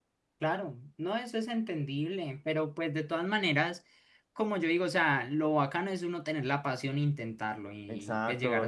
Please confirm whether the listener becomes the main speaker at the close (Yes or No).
Yes